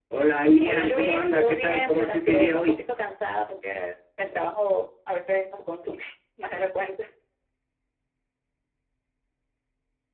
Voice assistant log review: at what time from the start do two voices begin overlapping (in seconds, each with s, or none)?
0.6 s